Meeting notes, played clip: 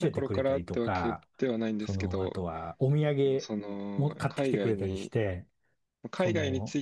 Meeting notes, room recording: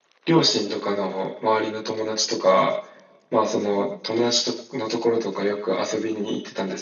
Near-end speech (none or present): present